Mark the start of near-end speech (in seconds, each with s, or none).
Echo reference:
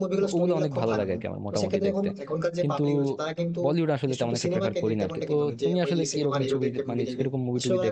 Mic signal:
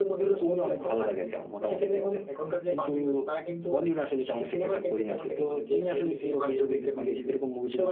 none